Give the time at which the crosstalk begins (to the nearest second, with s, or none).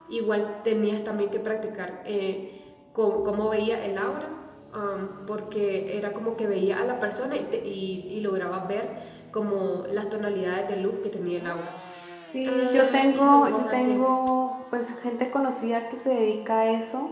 12 s